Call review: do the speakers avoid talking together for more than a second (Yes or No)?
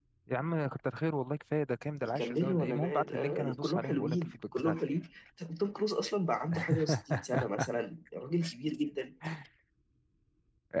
No